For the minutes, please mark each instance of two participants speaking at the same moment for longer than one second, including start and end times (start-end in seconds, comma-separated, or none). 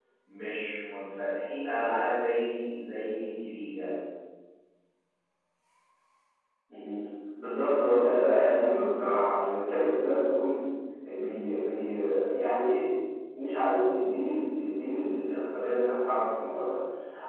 none